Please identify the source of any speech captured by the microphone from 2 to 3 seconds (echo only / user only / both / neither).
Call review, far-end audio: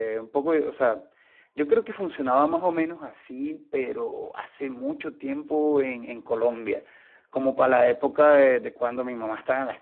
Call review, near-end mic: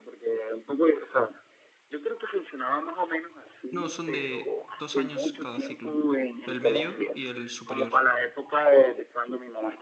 echo only